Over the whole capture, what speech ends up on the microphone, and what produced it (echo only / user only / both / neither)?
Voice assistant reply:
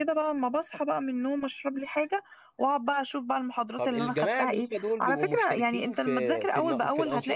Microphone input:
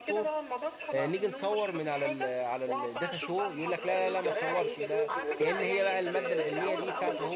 both